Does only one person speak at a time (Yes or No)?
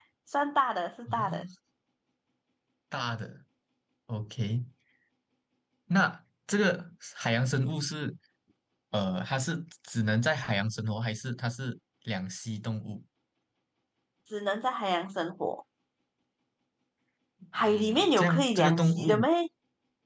No